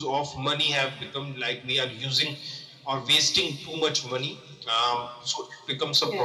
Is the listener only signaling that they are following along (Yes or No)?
Yes